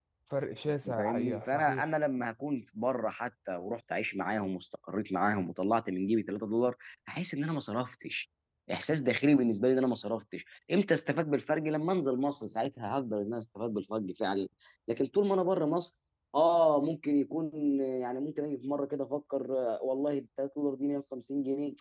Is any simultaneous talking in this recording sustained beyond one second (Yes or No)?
Yes